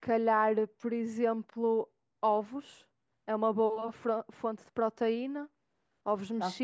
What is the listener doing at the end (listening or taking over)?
taking over